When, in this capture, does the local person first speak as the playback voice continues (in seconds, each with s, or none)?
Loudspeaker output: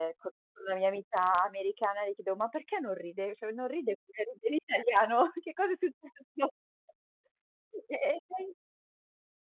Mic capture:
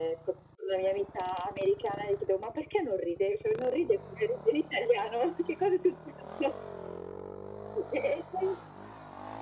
none